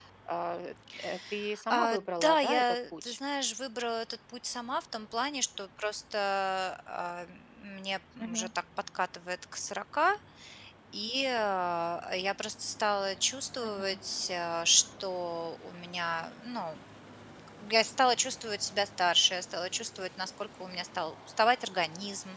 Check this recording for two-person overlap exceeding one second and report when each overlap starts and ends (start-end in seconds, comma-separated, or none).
1.7-3.2